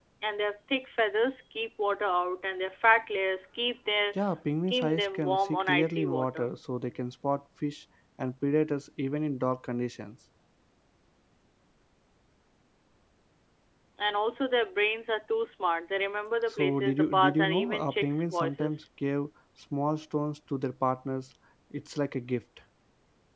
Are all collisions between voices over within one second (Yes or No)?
No